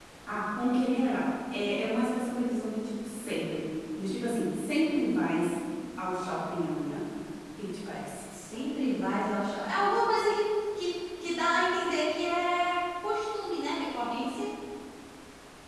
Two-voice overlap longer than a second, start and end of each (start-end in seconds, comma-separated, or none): none